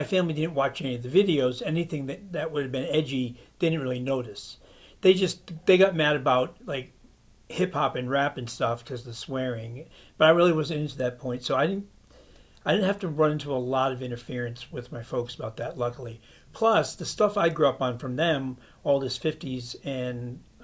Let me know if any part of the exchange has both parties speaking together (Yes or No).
No